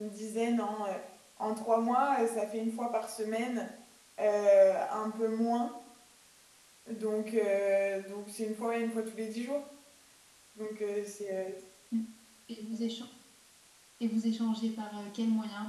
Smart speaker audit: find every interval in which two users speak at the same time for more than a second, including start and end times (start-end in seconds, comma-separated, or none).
none